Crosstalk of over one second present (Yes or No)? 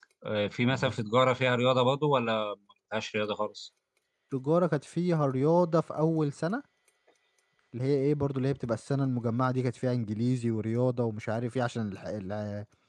No